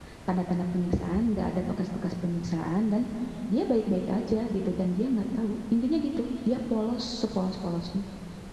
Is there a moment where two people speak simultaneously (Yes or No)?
No